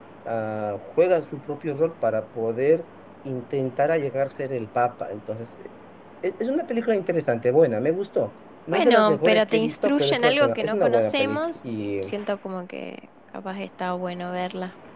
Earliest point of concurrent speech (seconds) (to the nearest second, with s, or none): 9 s